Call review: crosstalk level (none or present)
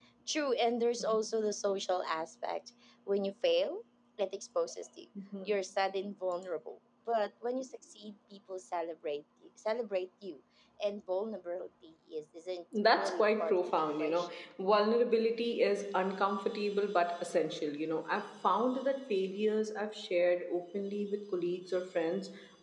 present